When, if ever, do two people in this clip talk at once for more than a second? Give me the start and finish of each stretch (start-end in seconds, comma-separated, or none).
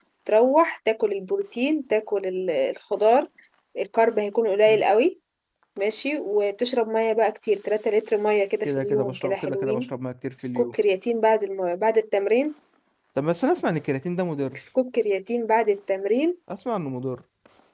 8.7-9.9